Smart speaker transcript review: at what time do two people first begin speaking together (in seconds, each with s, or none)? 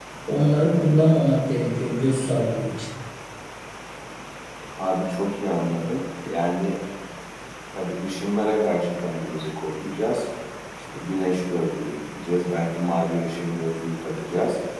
none